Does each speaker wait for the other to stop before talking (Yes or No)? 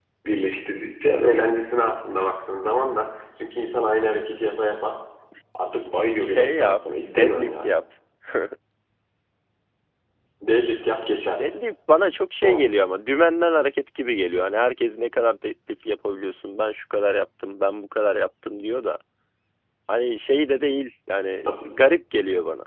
No